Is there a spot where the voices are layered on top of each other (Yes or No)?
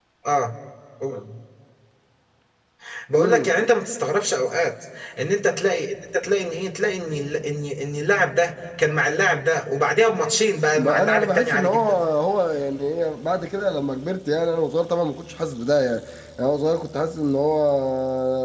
Yes